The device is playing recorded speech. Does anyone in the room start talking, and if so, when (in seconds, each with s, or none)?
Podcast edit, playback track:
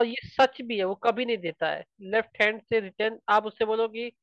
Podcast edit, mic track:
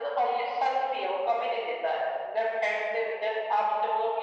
none